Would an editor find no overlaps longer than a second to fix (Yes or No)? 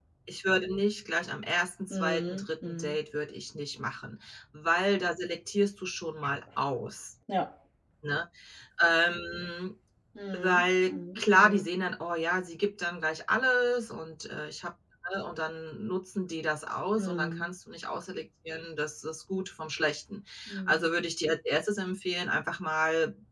No